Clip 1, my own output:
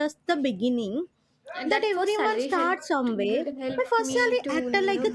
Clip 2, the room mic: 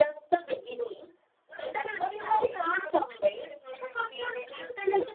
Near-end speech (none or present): none